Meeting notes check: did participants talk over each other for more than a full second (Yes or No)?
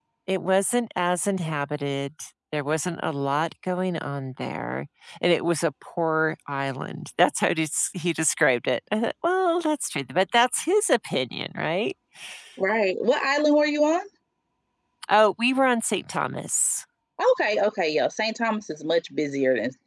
No